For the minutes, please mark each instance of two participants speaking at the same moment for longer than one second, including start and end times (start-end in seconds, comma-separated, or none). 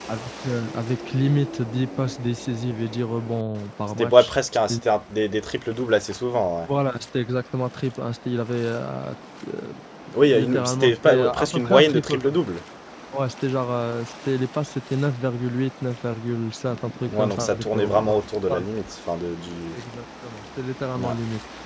10.3-12.4, 17.2-18.6